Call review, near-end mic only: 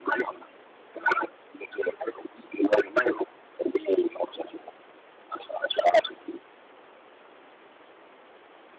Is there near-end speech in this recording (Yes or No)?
No